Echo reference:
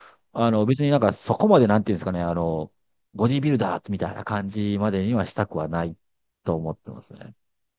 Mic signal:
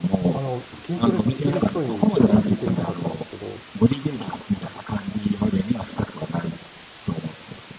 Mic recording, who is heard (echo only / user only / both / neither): both